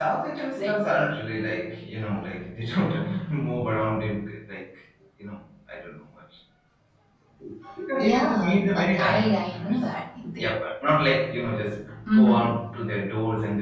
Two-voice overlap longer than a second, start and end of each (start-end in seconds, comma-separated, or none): 8.0-9.8